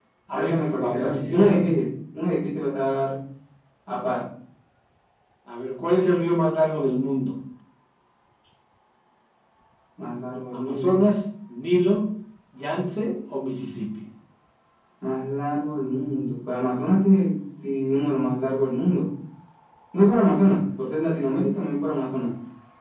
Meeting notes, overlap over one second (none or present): present